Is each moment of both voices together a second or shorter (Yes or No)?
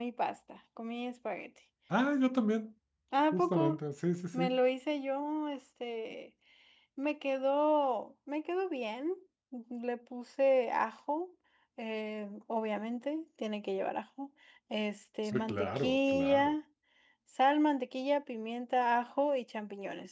No